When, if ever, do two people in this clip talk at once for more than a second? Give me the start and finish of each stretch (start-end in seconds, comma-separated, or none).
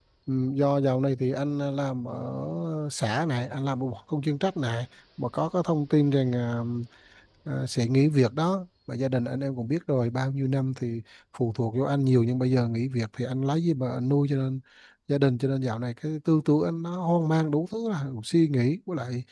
none